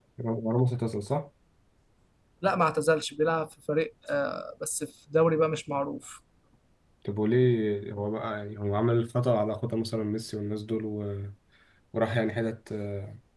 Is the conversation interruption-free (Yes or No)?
Yes